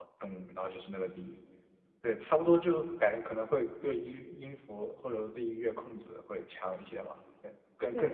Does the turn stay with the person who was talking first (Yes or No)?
No